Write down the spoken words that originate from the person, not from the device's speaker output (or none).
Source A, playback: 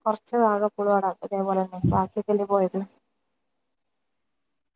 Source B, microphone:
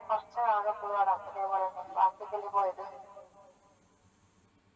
none